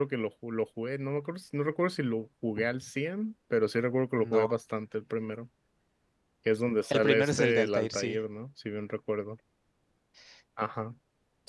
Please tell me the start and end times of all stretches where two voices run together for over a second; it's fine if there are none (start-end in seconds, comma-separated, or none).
6.9-8.2